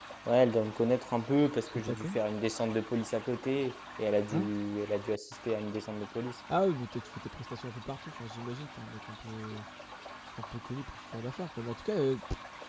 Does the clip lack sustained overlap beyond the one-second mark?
Yes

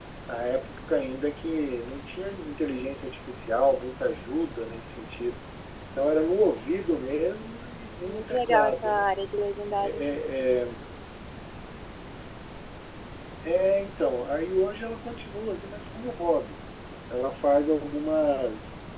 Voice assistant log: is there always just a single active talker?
No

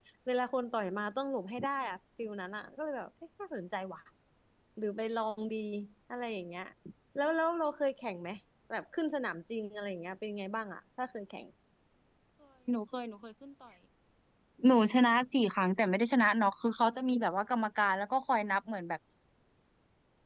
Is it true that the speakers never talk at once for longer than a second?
Yes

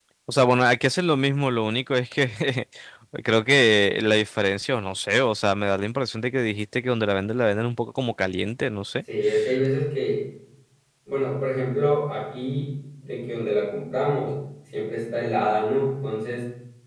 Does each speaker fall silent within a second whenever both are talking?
Yes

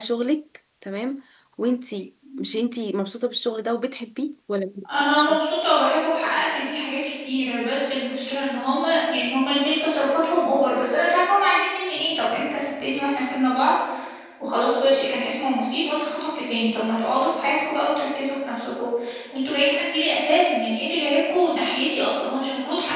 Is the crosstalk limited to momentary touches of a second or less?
Yes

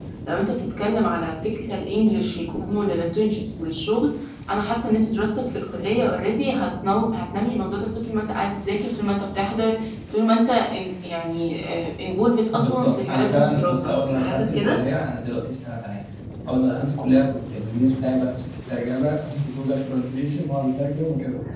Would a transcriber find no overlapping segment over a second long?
No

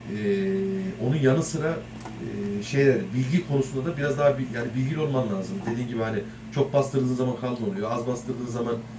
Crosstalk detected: No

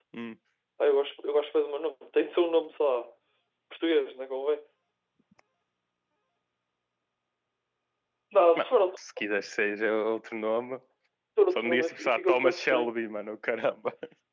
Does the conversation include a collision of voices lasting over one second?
Yes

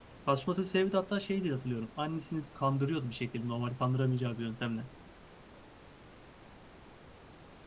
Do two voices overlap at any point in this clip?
No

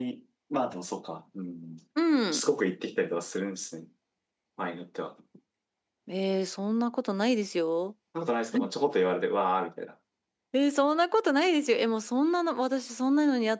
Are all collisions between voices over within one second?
Yes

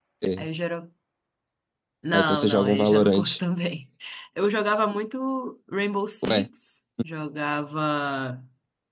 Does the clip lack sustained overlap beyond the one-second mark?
No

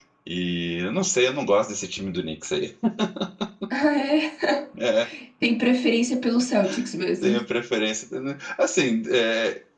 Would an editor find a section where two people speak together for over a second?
No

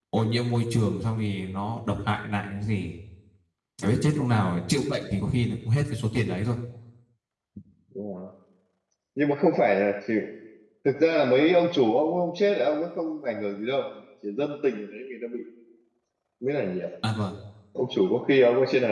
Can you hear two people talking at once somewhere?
No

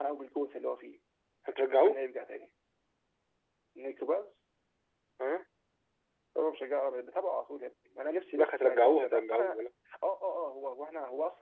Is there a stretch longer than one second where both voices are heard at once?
Yes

